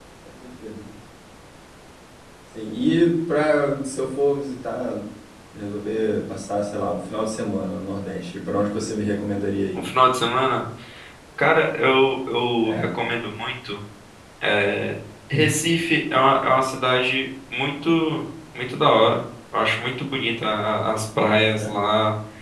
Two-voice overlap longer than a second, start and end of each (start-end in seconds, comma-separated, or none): none